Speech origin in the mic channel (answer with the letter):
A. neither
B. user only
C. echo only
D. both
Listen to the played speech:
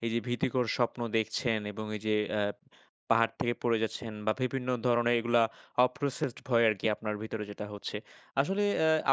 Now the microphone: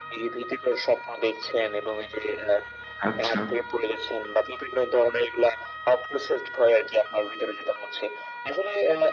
D